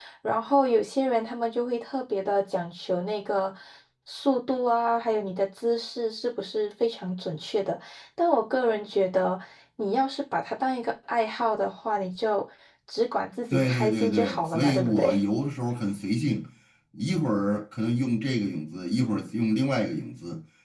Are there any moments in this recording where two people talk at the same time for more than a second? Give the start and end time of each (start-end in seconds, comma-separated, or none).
13.5-15.2